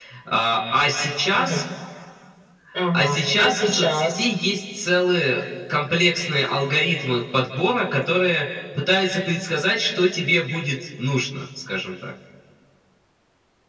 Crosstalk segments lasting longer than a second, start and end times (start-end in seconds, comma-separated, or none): 2.9-4.2